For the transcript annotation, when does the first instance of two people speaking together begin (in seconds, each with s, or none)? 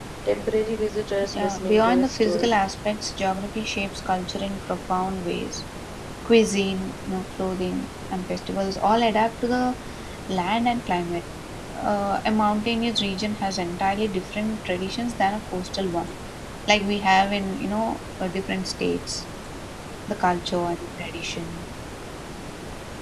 1.4 s